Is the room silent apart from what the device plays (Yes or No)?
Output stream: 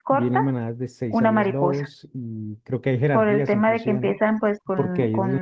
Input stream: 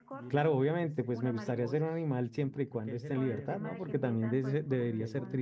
No